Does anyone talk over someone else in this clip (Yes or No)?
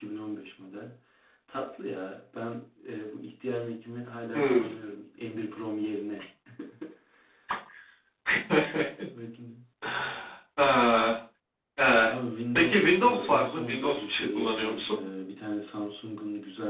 Yes